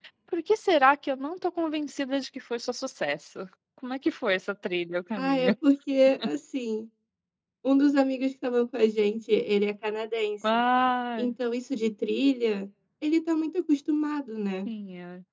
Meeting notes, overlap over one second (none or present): none